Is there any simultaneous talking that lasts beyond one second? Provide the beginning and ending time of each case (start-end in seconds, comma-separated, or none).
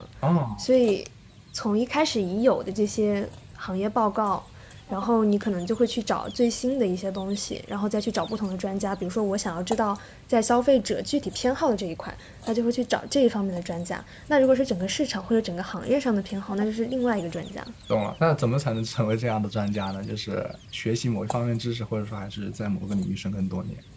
none